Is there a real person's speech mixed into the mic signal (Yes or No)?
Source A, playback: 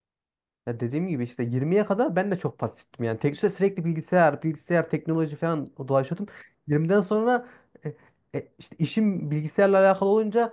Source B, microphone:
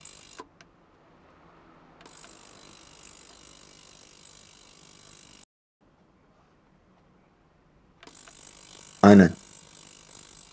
Yes